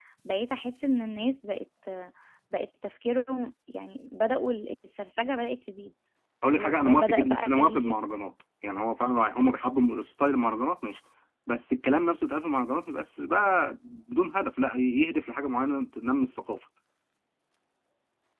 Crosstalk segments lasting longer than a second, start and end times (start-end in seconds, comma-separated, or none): 6.5-7.9